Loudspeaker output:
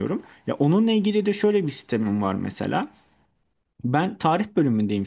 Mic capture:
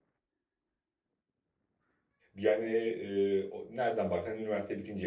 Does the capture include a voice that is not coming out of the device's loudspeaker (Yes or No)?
Yes